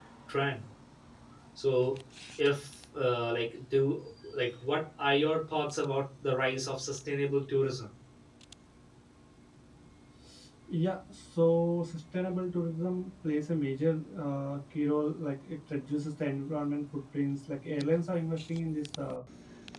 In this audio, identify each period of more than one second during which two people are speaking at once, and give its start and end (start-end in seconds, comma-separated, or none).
none